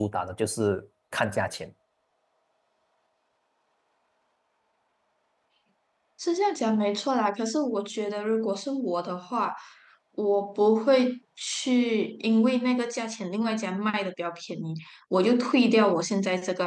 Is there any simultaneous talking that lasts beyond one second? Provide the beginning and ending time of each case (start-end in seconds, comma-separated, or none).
none